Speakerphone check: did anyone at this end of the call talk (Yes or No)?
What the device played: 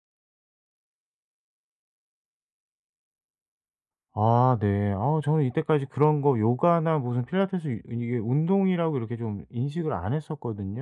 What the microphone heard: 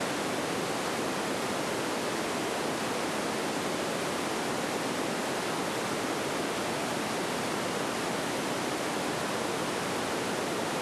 No